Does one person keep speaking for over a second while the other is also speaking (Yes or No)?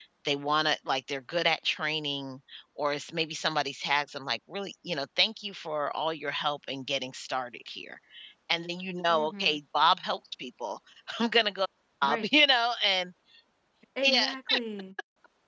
No